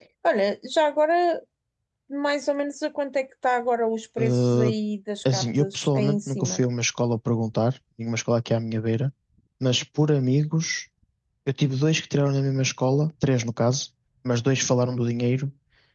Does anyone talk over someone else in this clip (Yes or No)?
Yes